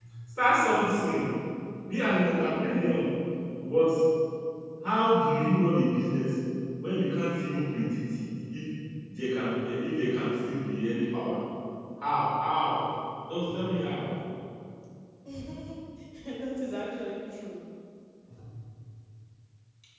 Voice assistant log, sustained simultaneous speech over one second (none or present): none